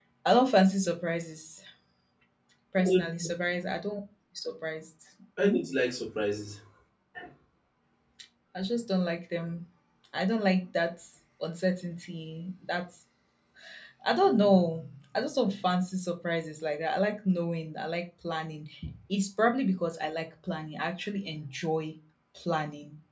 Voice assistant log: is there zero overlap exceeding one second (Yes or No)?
Yes